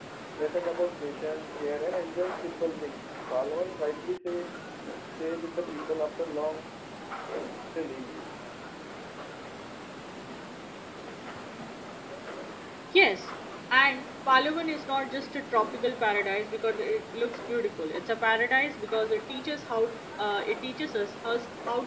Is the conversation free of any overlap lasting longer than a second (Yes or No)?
Yes